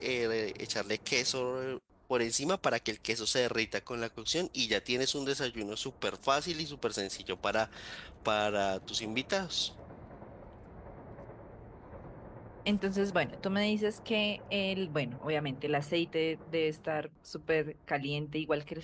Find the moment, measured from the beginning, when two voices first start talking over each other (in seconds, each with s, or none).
none